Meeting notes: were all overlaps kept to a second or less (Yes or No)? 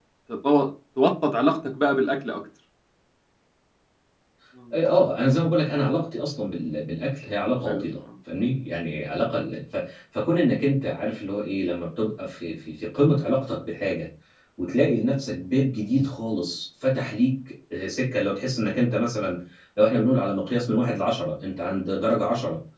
Yes